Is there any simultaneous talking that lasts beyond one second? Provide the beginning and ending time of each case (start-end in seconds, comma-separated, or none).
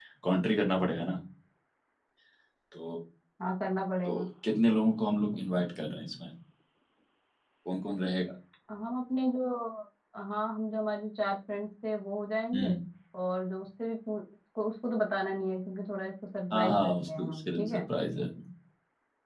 16.5-17.8